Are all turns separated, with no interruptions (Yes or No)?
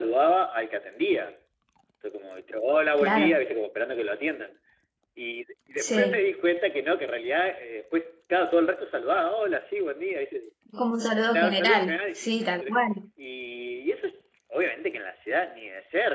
No